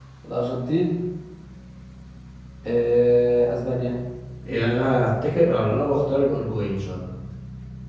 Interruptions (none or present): none